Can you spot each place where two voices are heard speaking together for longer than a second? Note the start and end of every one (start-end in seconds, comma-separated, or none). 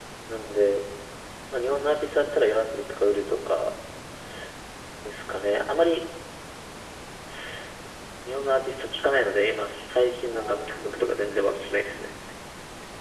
10.3-12.1